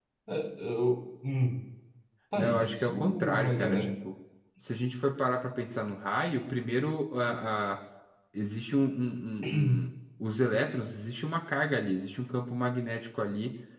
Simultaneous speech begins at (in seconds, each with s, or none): 2.4 s